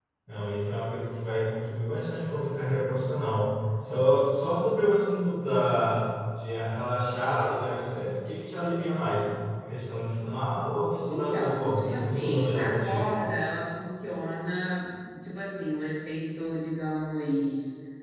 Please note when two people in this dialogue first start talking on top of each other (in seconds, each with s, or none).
11.1 s